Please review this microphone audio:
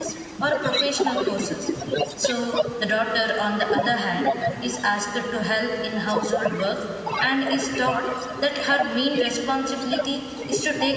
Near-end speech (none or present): present